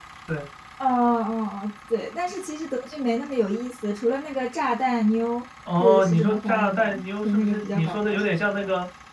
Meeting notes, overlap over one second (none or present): present